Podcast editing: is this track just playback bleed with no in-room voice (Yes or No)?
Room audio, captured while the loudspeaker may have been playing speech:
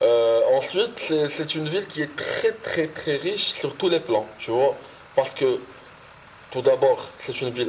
Yes